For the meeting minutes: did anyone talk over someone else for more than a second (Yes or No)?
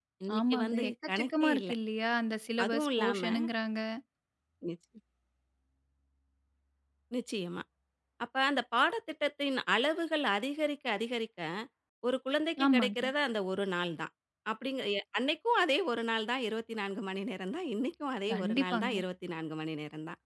Yes